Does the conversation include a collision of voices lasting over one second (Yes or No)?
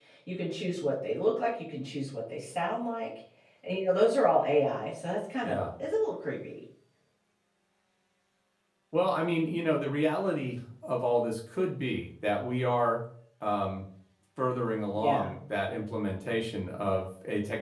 No